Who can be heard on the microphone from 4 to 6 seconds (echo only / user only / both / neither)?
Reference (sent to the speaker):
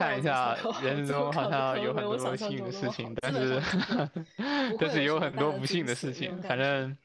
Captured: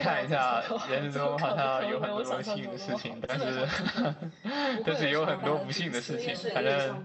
both